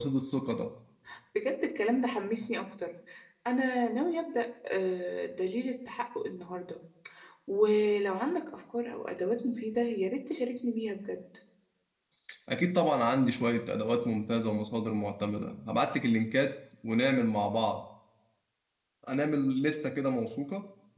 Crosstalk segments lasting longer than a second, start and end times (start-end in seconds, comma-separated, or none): none